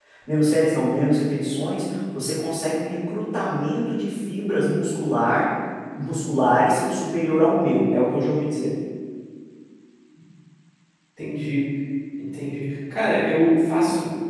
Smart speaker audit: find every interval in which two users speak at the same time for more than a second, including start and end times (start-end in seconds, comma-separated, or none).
none